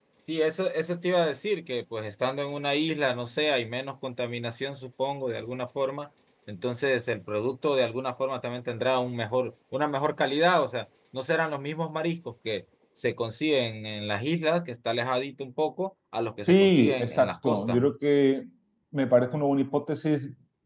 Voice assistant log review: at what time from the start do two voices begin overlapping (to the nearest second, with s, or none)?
16 s